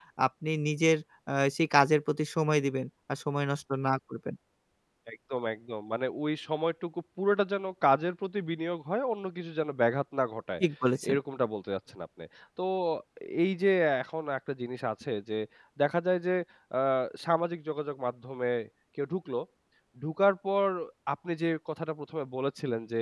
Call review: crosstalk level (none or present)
none